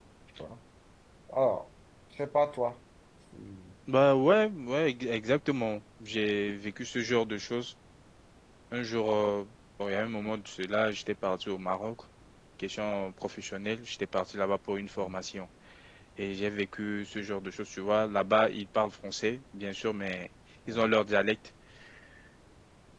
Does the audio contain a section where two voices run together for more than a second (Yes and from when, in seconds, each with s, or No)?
No